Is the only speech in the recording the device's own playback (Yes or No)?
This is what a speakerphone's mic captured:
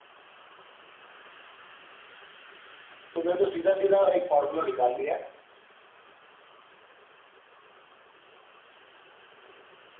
No